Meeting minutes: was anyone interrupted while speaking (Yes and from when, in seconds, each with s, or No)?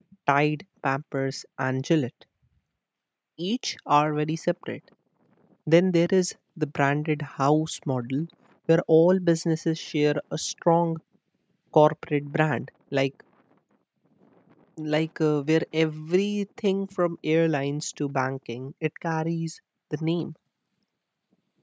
No